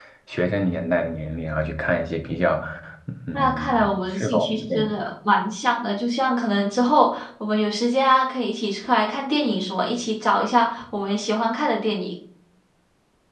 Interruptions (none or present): present